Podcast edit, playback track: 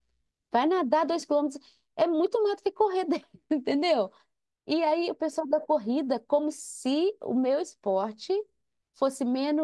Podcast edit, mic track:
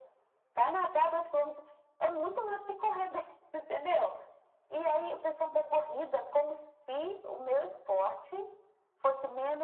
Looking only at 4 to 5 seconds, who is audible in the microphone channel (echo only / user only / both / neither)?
echo only